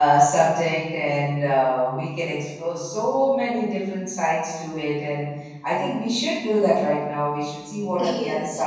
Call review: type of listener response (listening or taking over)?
listening